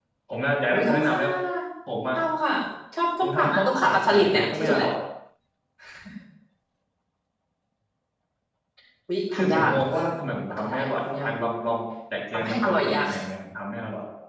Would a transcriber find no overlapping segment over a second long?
No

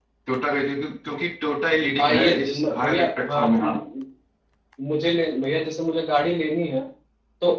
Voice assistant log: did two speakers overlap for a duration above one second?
Yes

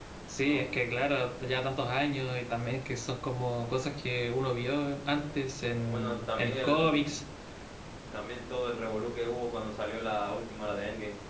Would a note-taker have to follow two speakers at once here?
Yes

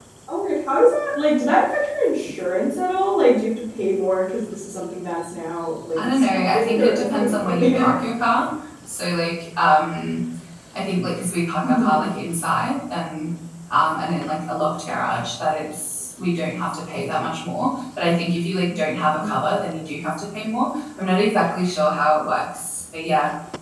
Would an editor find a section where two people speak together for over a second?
Yes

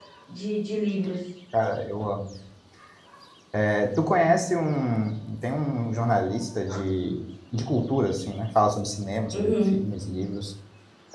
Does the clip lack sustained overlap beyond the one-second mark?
Yes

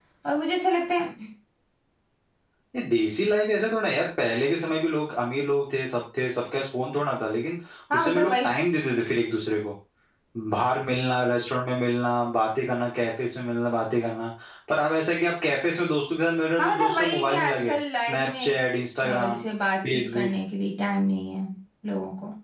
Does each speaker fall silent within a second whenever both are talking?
No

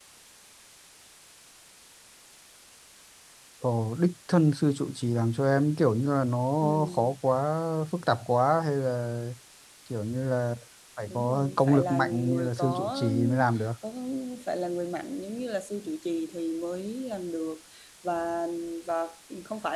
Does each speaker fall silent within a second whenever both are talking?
No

